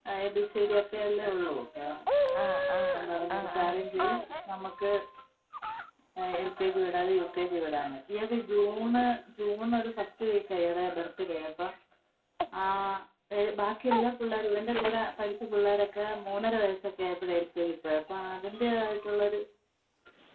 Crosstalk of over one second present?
Yes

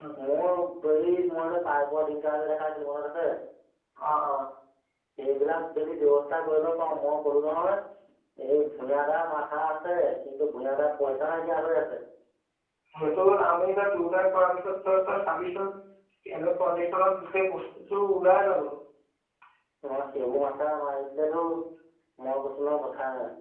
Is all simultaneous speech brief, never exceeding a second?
Yes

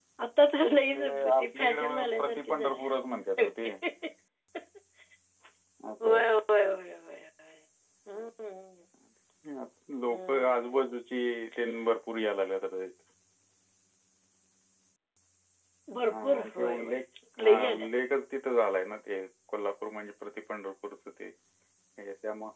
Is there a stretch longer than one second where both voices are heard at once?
Yes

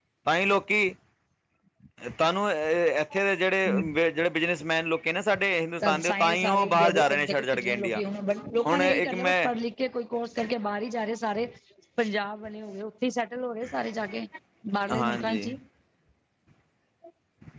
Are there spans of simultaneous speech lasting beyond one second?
Yes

